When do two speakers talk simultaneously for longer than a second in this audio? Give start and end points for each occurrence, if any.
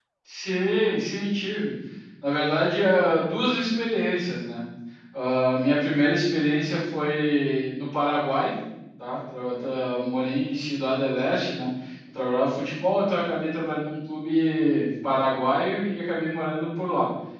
none

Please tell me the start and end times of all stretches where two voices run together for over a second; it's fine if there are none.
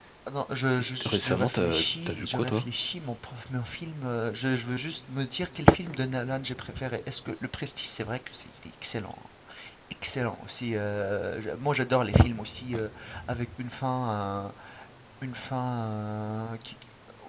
0.8-2.6

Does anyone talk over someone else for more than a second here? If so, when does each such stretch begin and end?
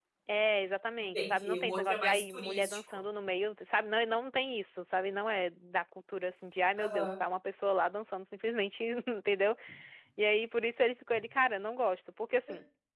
1.1-3.0

